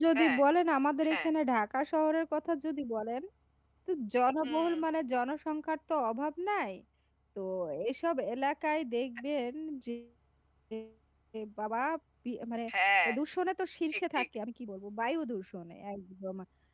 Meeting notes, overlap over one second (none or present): none